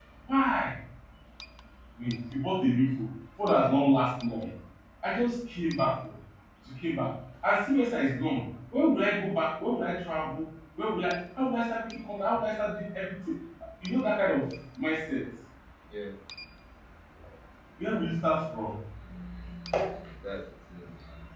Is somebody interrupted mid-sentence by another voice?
No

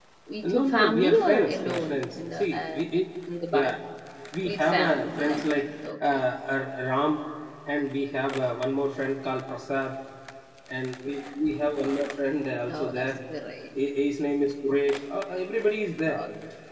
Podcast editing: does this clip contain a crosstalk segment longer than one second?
Yes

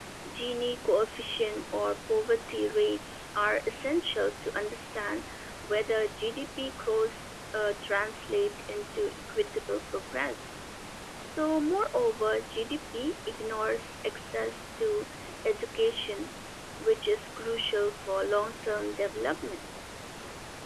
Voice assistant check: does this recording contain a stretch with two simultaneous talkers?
No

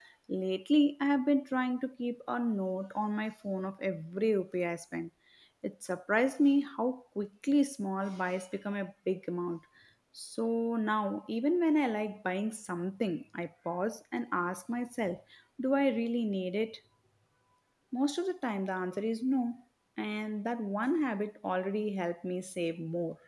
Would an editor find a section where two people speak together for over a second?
No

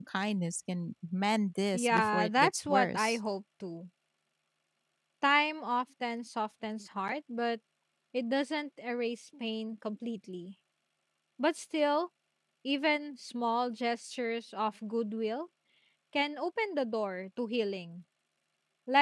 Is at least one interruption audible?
Yes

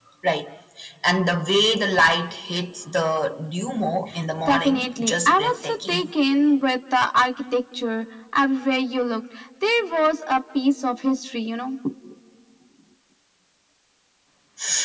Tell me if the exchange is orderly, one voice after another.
No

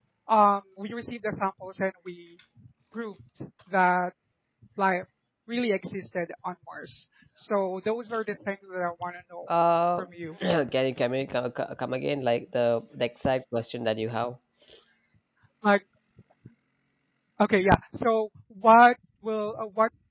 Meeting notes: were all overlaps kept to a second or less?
Yes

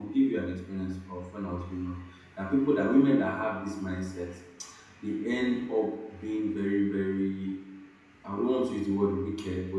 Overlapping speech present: No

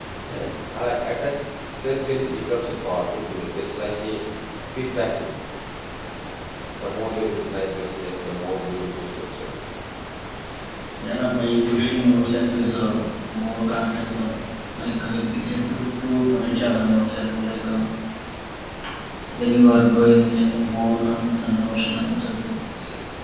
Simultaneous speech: No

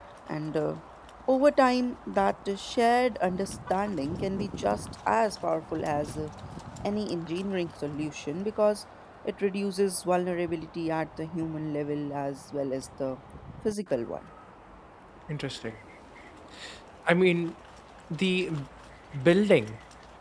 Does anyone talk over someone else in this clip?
No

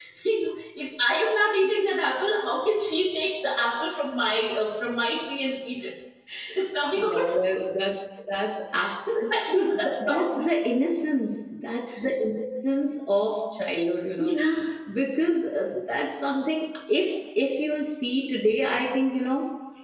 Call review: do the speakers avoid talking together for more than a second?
No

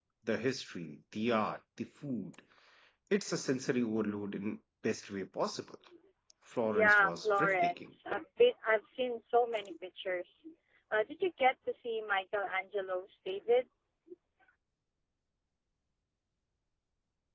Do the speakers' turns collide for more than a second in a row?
Yes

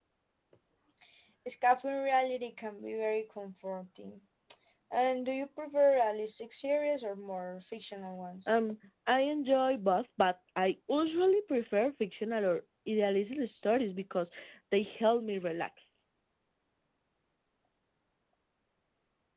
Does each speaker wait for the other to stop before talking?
Yes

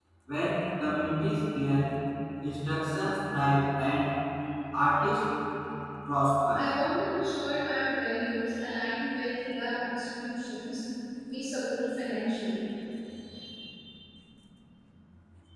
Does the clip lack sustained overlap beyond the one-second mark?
Yes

